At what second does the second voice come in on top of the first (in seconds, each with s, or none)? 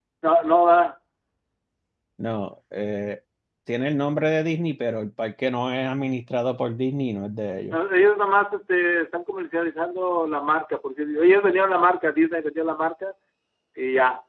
none